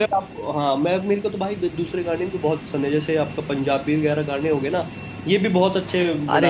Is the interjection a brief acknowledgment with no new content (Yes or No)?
No